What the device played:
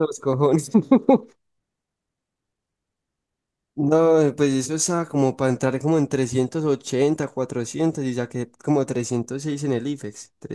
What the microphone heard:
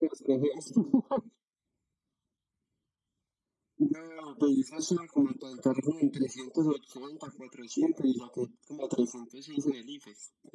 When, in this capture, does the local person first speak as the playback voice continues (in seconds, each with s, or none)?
none